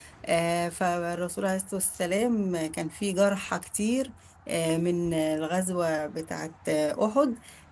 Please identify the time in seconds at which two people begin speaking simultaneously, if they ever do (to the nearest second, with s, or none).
none